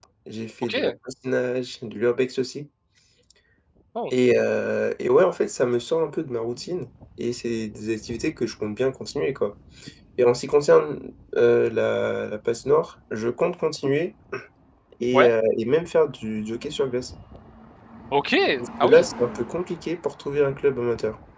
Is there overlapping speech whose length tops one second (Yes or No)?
No